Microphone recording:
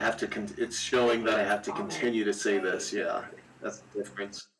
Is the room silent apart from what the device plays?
No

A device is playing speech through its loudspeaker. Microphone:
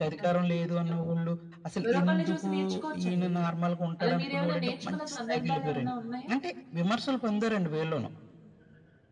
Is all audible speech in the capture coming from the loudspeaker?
No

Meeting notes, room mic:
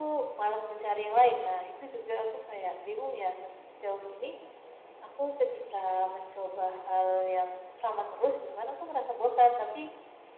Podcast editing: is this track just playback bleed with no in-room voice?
Yes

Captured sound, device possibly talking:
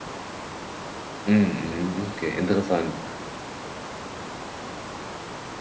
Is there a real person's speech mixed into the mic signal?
Yes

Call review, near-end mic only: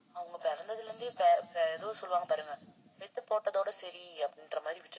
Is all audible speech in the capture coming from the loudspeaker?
Yes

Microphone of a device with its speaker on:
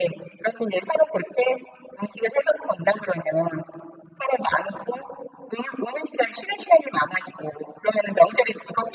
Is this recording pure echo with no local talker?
Yes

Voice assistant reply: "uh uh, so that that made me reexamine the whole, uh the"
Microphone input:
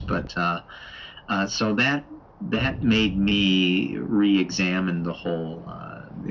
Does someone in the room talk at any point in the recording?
No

